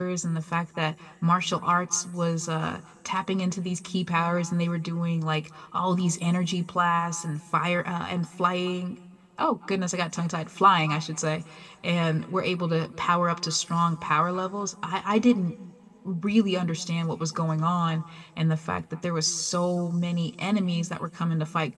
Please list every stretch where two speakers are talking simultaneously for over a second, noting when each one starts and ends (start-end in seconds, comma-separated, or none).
none